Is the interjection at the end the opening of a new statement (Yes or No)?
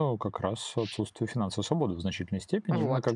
No